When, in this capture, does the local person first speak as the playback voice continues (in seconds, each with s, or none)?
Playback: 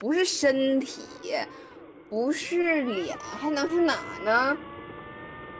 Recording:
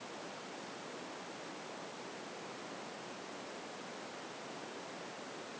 none